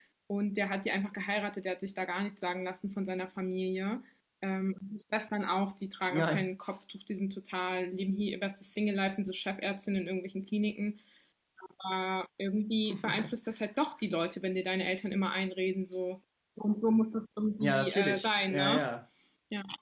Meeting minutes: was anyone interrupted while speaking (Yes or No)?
Yes